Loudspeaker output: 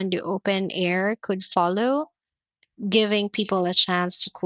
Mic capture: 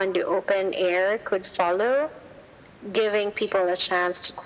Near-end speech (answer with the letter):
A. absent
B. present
A